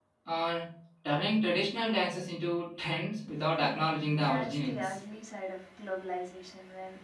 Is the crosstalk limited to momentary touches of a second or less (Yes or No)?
No